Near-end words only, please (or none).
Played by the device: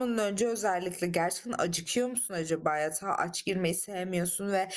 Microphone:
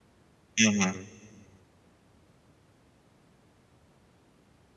Hı hı.